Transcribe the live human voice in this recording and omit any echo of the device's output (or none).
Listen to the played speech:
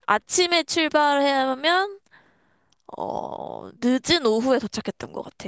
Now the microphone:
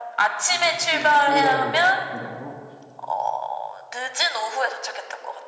이렇게 다시 돌아오는 거, 과정으로.